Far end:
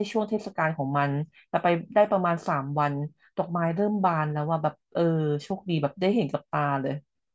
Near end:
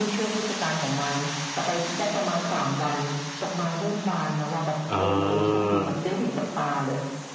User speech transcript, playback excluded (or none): อ่า